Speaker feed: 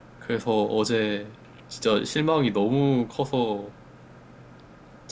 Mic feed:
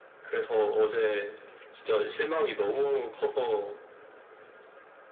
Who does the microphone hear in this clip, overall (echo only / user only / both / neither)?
echo only